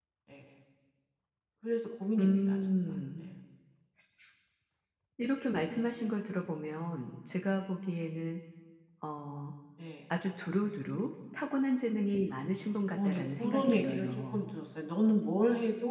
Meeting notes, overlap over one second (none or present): present